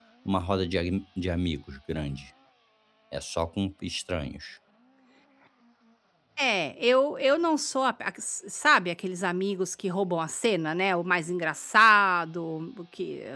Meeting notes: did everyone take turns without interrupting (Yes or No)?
Yes